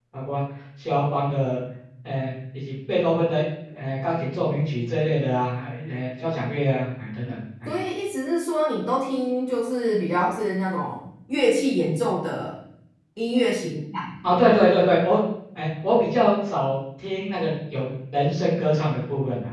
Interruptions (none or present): none